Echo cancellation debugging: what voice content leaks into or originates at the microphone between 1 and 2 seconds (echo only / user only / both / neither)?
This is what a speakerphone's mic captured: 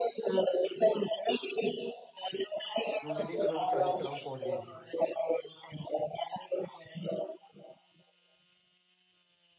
echo only